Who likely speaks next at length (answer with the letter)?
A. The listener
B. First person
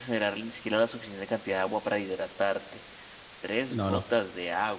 B